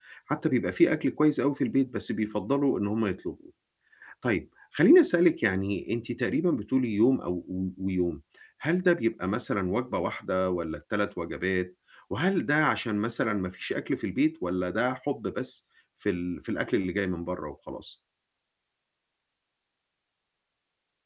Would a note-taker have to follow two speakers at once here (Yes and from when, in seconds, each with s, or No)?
No